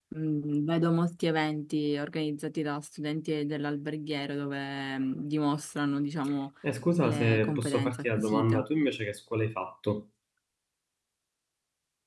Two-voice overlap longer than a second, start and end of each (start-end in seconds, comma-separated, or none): 7.0-8.6